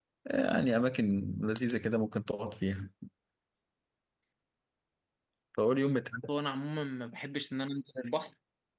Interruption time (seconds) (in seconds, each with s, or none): none